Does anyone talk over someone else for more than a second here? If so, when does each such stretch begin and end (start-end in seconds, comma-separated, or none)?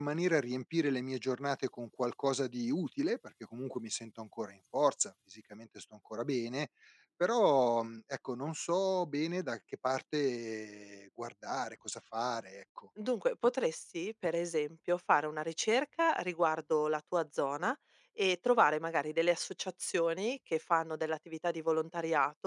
none